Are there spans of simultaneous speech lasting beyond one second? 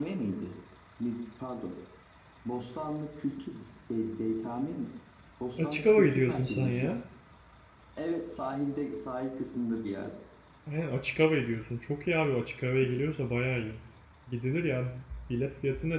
Yes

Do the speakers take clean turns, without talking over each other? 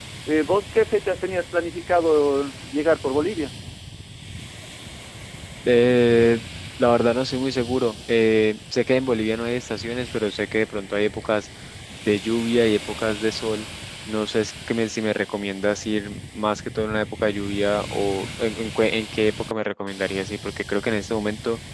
Yes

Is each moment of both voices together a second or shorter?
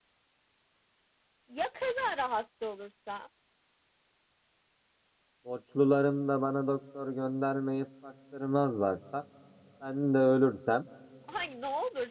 Yes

